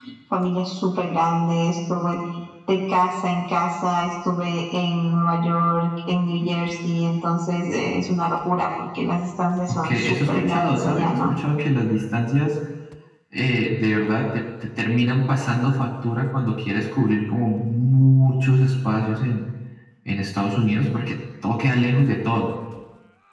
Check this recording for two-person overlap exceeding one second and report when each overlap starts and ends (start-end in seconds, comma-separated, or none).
9.7-11.3